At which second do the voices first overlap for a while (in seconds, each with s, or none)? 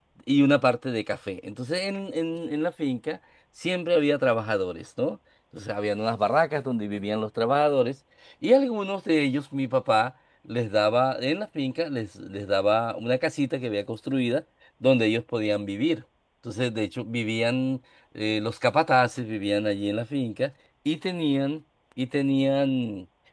none